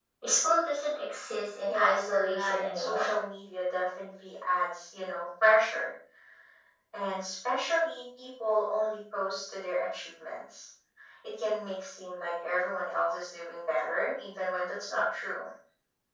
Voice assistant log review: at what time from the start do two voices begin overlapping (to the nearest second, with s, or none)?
2 s